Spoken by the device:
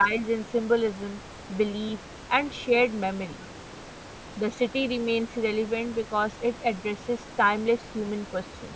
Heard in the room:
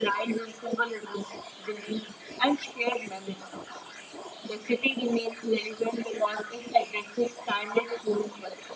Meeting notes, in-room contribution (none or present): none